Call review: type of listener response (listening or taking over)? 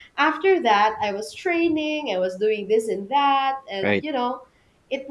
listening